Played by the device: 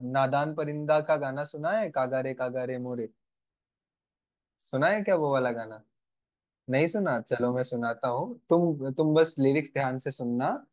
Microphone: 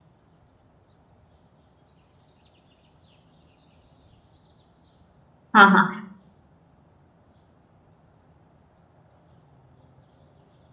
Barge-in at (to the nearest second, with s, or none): 6 s